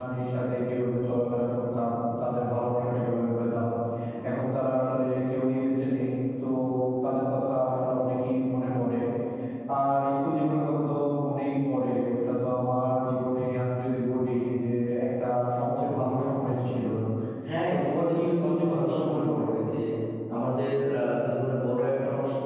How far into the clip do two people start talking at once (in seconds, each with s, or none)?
17.7 s